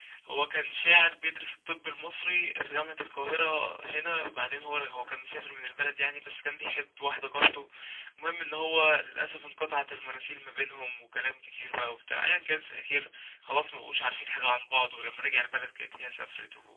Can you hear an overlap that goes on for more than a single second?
No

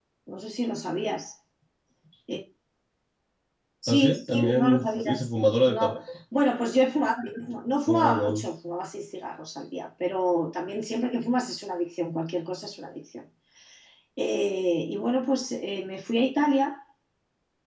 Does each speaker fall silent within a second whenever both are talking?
No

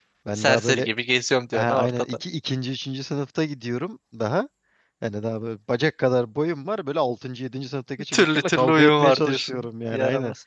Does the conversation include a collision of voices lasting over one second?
Yes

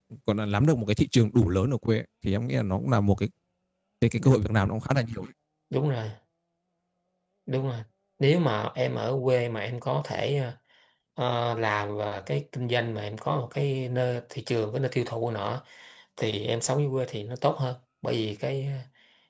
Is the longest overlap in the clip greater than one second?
No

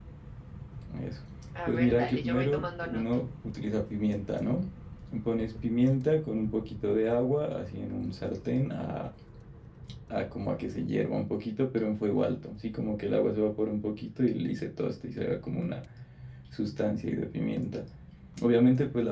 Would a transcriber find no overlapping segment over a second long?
No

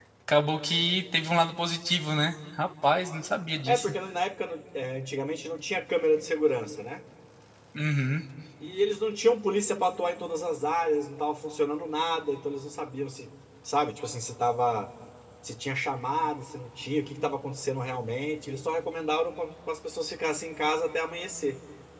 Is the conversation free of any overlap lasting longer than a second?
Yes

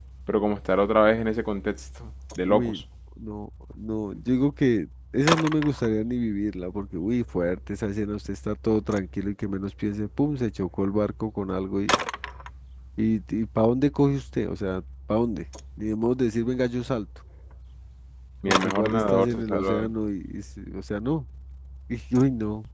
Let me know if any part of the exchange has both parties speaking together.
Yes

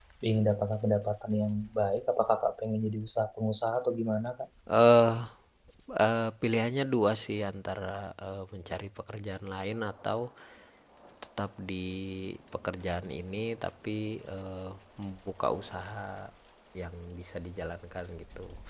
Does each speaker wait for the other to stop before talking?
Yes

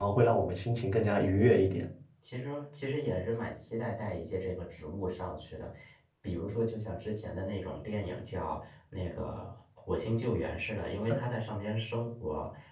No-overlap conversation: Yes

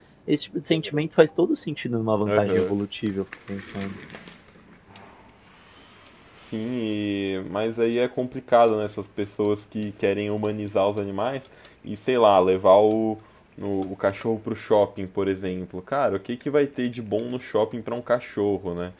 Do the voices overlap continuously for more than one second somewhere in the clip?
No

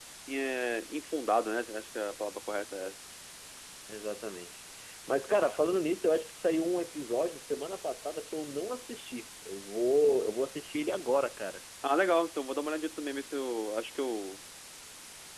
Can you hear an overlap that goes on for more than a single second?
No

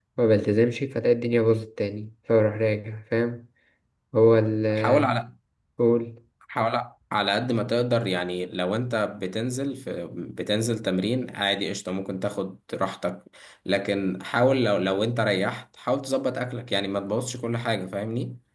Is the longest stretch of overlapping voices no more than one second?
Yes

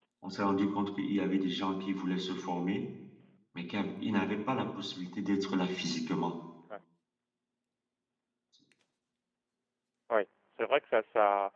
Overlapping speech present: No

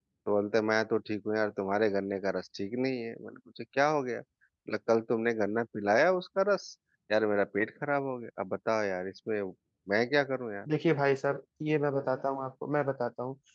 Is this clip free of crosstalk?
Yes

